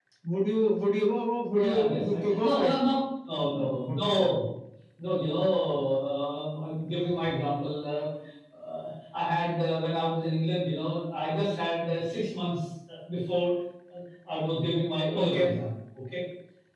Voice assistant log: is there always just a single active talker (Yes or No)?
No